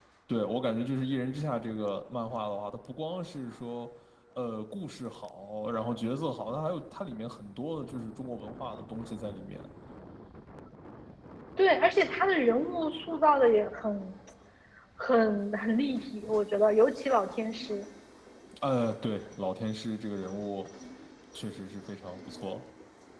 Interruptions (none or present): none